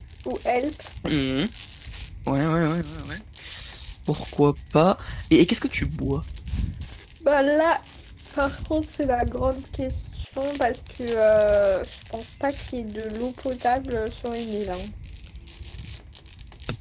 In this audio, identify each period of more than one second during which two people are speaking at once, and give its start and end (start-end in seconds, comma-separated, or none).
none